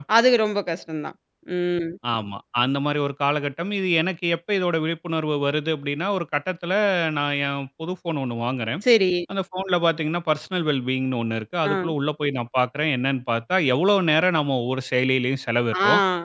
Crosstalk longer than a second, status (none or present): none